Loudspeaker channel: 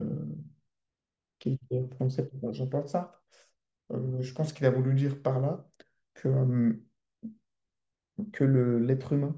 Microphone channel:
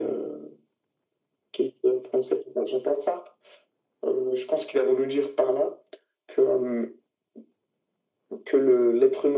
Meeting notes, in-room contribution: none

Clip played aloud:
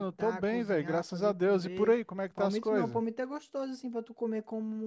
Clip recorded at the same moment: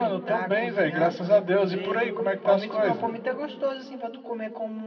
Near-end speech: none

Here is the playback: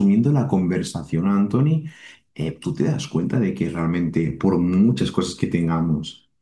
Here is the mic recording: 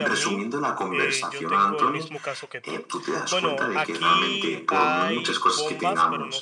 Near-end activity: present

